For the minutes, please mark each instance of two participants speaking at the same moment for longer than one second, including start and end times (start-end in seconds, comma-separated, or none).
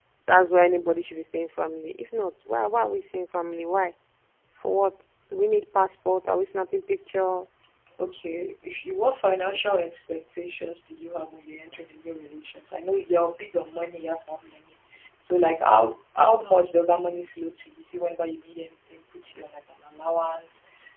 none